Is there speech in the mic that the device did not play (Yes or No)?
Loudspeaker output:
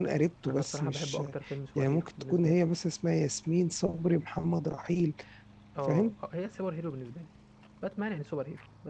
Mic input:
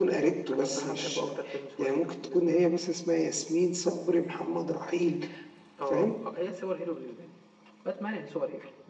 No